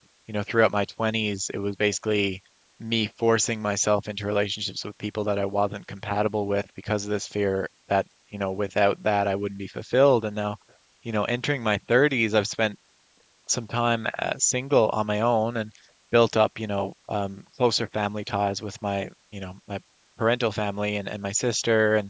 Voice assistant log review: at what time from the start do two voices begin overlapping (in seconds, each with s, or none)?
none